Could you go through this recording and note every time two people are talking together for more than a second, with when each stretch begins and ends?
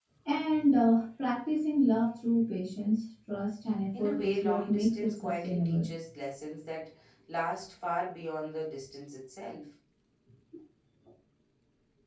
4.0-5.9

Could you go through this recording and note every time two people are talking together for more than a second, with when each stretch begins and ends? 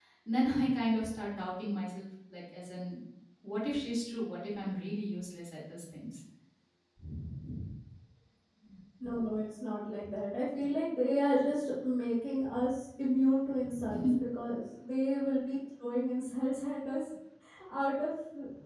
none

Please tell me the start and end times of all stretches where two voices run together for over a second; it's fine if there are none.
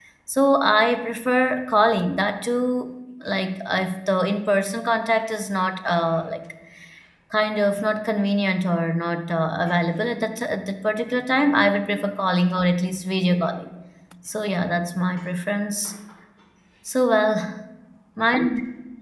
none

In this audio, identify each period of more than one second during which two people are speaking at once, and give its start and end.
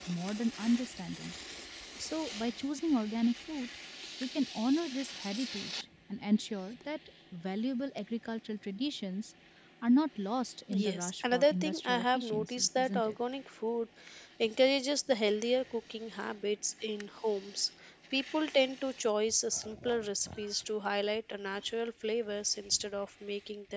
10.8-13.1

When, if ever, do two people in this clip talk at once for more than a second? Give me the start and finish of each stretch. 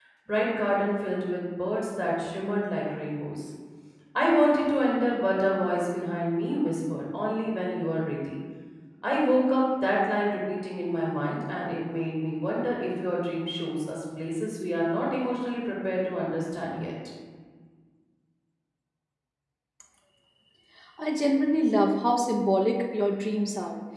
none

